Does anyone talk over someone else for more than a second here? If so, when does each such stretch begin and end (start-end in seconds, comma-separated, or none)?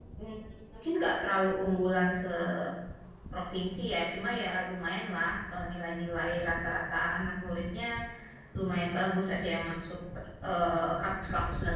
none